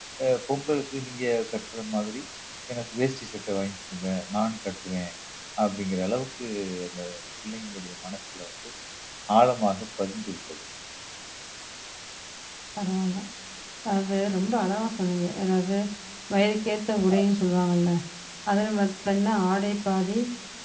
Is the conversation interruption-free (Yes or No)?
Yes